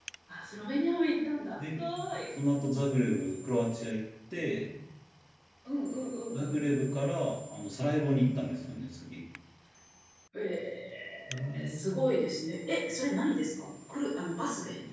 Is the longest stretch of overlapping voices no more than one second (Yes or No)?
Yes